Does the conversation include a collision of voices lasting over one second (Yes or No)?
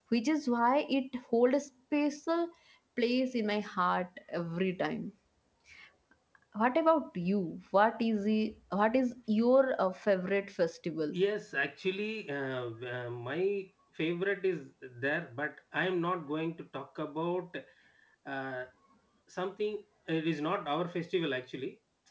No